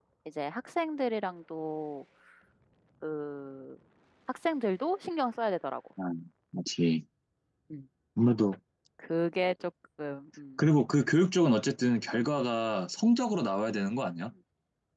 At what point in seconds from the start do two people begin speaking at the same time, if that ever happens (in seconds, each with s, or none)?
none